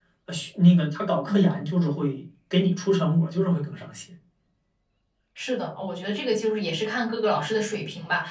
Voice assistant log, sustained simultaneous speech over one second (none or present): none